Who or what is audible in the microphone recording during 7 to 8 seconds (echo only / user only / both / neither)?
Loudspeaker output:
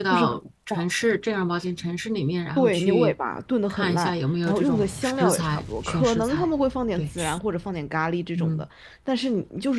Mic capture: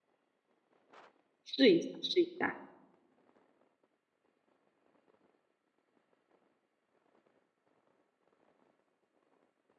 neither